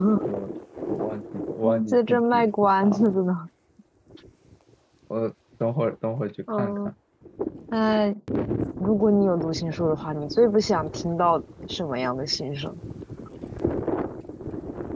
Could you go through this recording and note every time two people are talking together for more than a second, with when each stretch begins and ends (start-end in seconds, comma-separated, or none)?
1.6-3.2